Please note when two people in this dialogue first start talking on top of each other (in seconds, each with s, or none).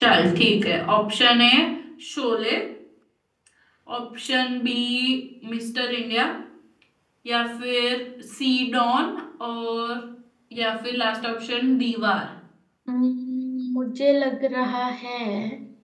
none